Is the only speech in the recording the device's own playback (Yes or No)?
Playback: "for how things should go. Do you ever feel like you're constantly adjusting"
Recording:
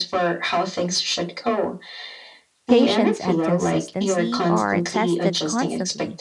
No